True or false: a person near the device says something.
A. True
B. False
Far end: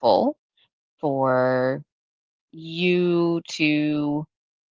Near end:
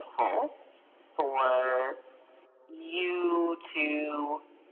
B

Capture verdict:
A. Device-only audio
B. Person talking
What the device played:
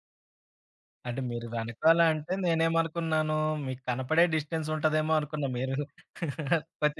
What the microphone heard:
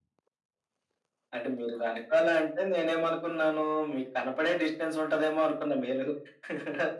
A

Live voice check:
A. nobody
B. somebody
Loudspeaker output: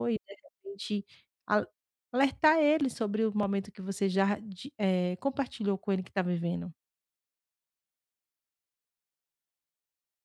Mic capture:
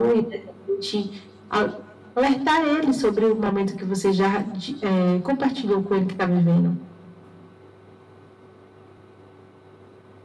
A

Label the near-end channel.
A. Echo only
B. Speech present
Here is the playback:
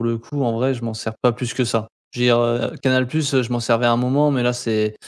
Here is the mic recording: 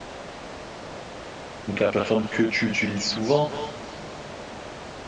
B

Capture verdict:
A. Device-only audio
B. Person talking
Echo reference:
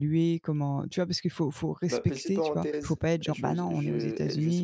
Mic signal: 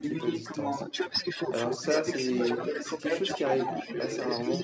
B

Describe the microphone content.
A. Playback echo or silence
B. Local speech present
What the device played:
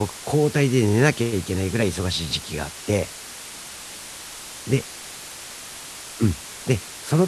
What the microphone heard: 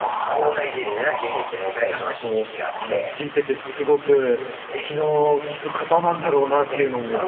B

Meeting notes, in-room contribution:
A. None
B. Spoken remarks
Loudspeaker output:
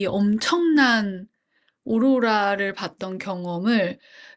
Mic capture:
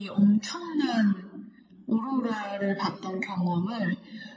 A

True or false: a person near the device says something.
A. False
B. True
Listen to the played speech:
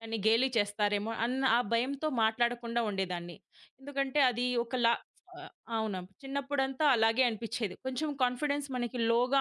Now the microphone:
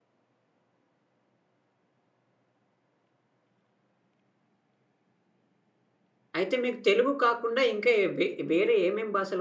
B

